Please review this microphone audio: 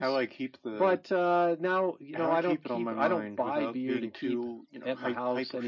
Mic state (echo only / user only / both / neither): echo only